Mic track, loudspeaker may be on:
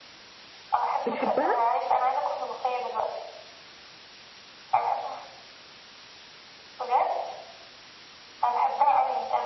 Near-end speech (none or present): present